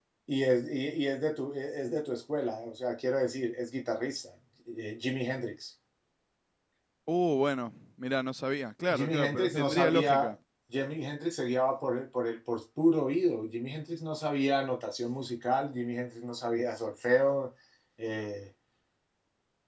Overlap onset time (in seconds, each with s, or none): 8.9 s